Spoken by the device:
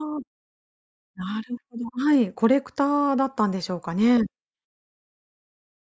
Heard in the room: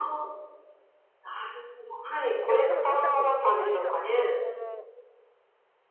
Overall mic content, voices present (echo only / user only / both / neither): both